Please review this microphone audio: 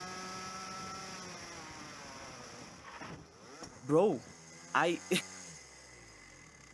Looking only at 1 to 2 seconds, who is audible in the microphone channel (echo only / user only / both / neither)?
neither